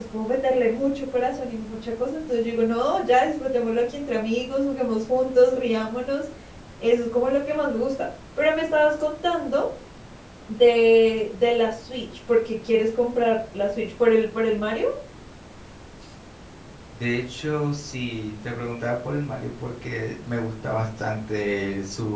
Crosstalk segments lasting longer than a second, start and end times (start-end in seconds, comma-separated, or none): none